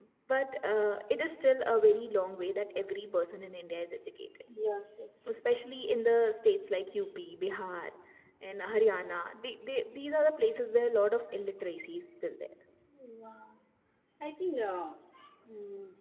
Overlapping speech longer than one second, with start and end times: none

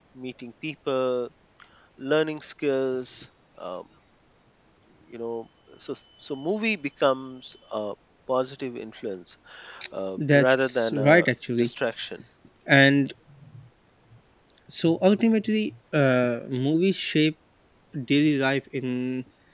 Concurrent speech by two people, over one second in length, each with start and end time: 10.2-11.7

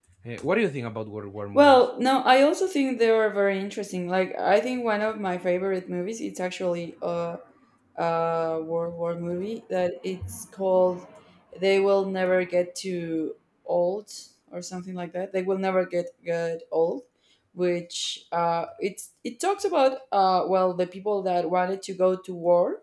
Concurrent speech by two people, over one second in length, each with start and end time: none

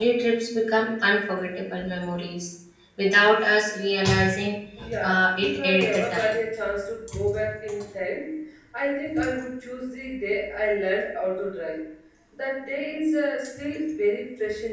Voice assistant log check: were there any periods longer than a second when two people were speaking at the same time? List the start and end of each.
5.0-6.3

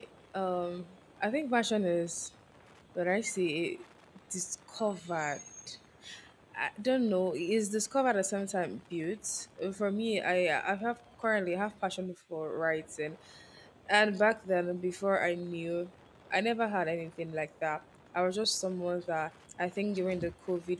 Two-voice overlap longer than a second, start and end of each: none

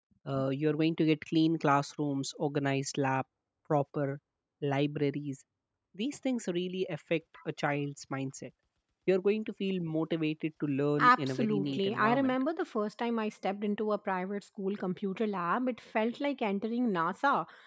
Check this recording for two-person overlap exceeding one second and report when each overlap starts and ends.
11.0-12.3

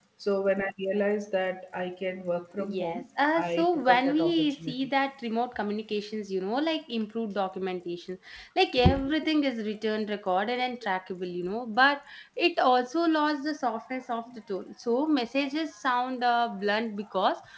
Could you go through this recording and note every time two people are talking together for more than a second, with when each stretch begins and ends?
3.5-4.7

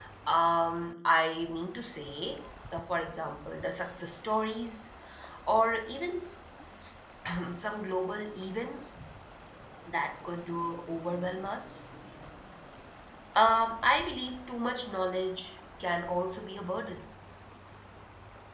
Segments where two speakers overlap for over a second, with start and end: none

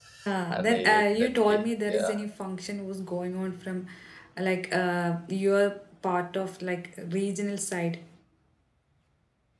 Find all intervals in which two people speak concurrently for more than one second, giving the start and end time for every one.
0.5-2.1

